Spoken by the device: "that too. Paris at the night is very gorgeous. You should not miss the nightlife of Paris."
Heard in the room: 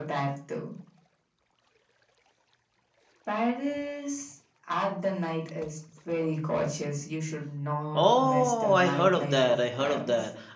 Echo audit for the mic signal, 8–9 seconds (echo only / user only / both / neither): both